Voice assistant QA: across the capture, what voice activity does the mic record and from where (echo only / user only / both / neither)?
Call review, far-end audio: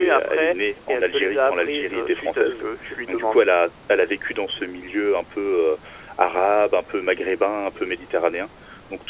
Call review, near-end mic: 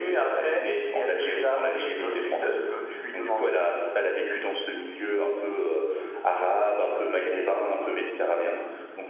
echo only